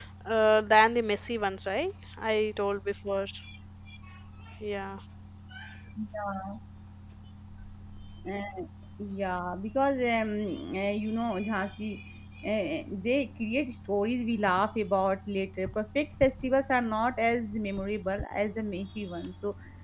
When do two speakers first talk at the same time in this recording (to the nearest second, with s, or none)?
none